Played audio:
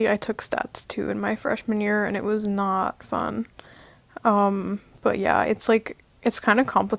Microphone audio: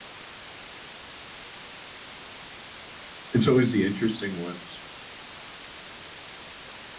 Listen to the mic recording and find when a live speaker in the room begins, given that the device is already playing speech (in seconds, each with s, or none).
3.3 s